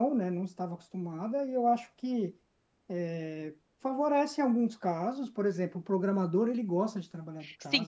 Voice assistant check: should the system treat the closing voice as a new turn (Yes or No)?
Yes